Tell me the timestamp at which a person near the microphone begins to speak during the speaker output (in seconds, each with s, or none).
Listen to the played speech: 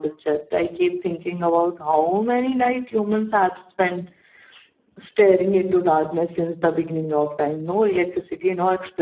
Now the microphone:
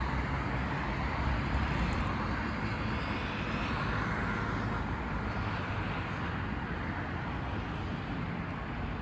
none